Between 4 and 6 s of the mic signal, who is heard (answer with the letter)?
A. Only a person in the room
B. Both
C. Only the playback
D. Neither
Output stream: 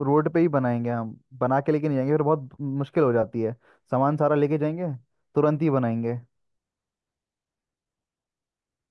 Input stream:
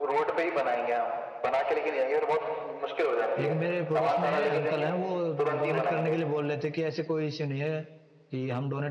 B